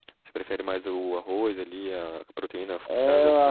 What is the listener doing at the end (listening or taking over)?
taking over